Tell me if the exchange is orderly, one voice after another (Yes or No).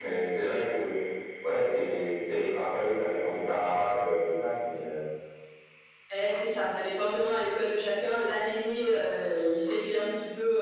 Yes